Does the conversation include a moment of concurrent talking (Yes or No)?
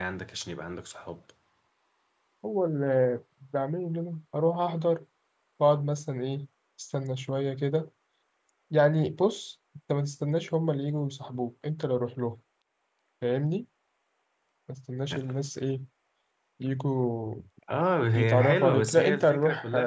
Yes